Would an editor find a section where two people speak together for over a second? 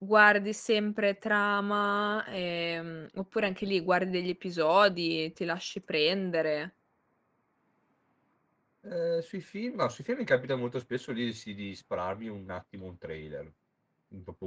No

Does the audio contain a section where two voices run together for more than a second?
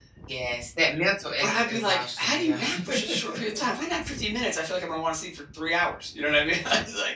Yes, from 1.4 s

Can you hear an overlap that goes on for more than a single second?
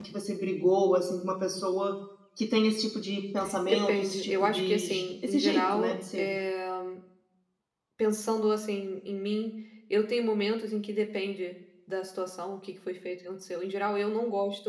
Yes, from 3.7 s

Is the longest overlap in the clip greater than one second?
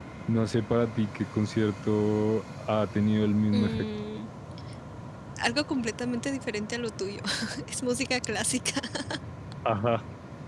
No

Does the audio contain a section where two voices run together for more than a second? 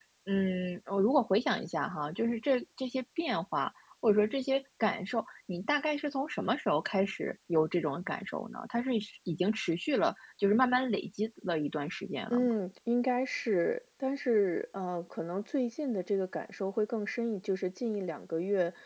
No

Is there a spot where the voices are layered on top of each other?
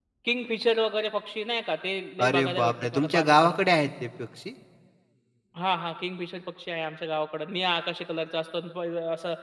Yes, from 2.2 s

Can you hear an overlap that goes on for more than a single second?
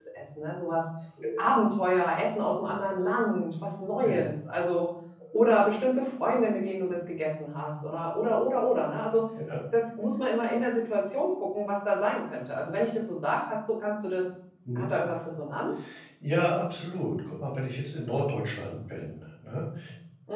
No

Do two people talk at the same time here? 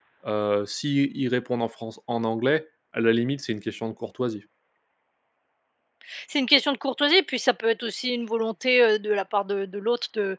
No

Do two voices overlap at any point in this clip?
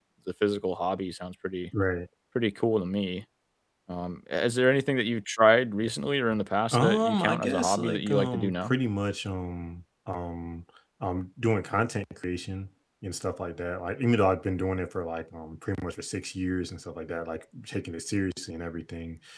Yes, from 6.7 s

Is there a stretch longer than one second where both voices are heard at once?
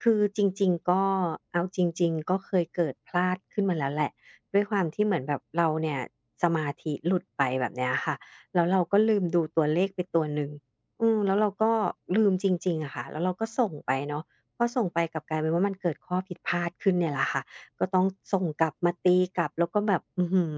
No

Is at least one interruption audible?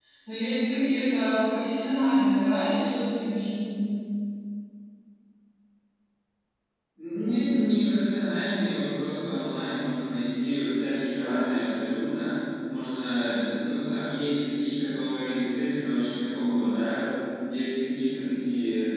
No

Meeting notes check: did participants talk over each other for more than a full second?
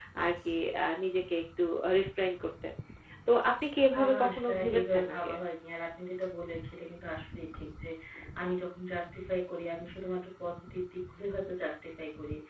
Yes, from 3.6 s

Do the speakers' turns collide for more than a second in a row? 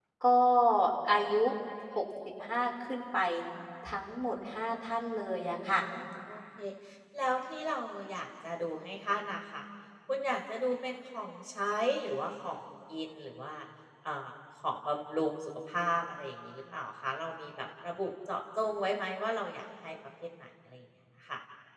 No

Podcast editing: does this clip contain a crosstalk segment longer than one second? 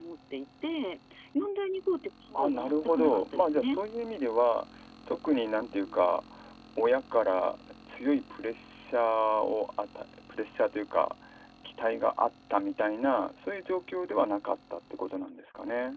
Yes, from 2.4 s

